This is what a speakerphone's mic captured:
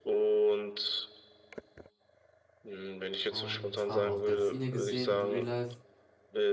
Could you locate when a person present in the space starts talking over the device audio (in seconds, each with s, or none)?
3.3 s